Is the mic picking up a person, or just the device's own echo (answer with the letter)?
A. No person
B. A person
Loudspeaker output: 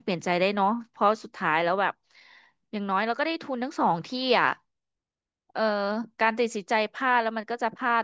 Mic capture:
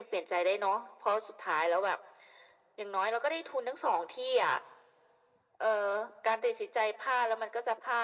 A